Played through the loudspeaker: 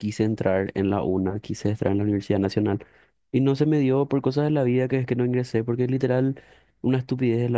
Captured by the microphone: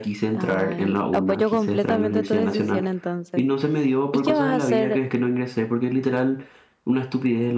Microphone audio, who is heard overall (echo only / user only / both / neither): both